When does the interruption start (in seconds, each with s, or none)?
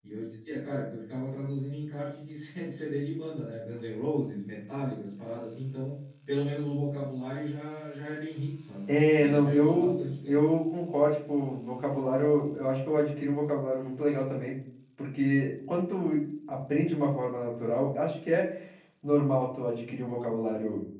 8.9 s